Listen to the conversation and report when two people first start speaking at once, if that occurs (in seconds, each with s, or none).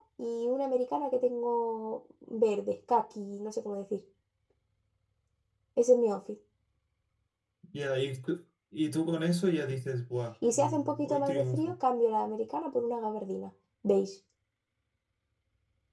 10.4 s